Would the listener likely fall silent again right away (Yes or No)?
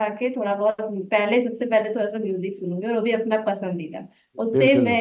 Yes